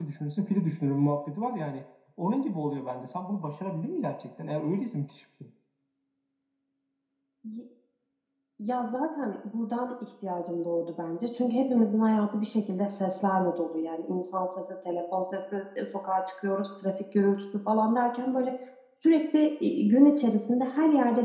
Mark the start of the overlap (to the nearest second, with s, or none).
none